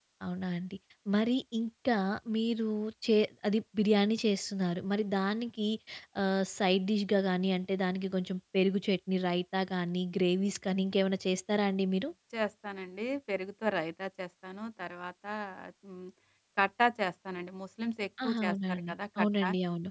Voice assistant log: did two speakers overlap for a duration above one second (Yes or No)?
Yes